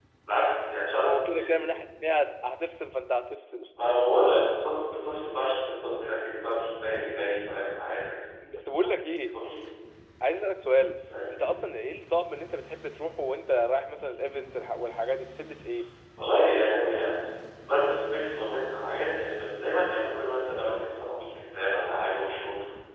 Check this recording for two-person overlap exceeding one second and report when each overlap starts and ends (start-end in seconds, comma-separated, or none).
none